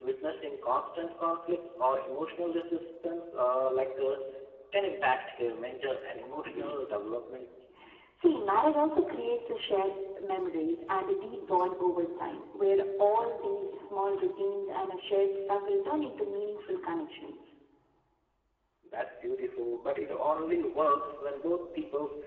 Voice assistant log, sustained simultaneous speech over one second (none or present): none